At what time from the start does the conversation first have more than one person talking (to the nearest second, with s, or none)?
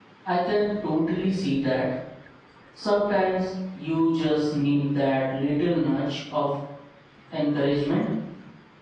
none